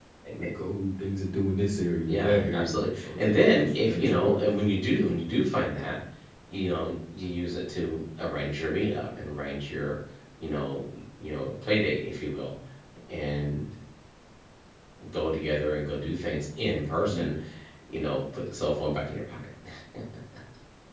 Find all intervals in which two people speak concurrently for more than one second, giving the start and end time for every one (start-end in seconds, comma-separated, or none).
2.0-4.5